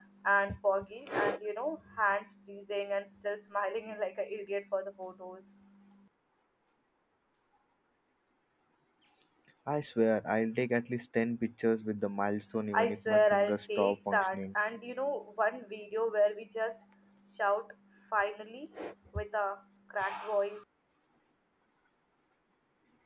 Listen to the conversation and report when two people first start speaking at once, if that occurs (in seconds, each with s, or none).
12.7 s